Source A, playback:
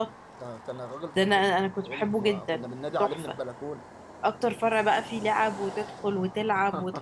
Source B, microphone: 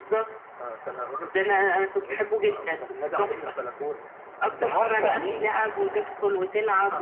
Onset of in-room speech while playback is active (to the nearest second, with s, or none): 4 s